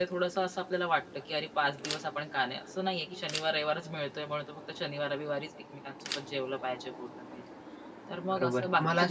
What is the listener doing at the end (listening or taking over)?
taking over